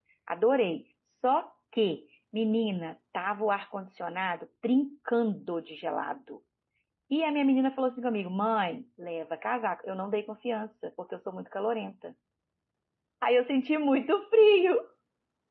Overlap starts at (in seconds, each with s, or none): none